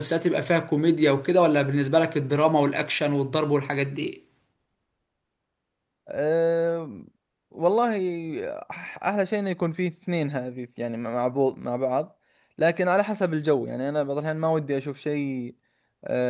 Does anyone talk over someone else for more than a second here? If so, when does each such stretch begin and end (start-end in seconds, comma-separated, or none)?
none